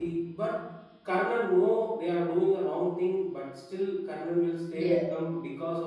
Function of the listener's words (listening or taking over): listening